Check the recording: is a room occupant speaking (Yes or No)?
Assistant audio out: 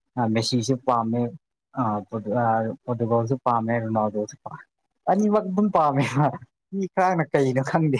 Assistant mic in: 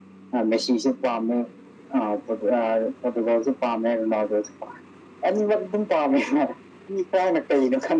No